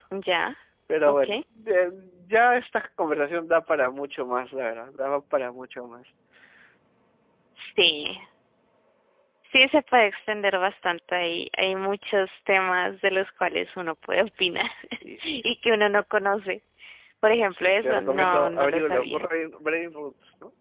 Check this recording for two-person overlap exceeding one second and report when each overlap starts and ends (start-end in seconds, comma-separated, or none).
17.5-19.2